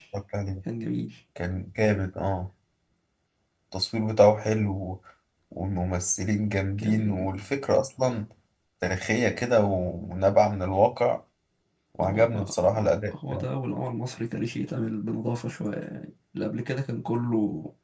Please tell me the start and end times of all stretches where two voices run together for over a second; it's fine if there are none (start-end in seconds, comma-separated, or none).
none